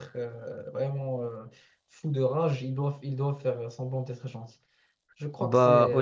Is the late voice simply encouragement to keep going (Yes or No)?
No